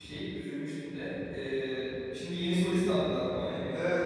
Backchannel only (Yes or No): No